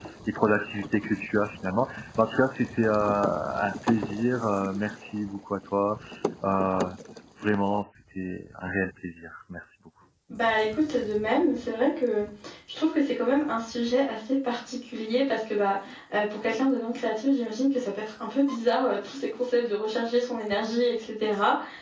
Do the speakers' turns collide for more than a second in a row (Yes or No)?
No